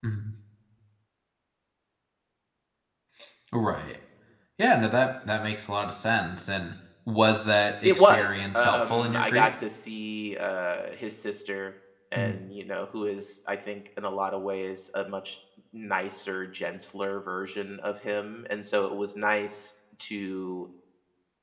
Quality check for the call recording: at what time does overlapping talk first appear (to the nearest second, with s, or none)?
8 s